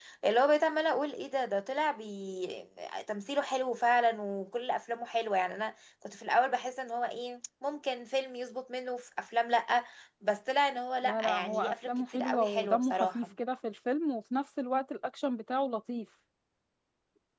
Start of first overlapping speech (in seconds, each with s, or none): 11.0 s